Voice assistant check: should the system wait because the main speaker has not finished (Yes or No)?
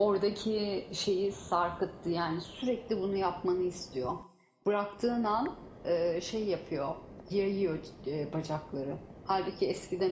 Yes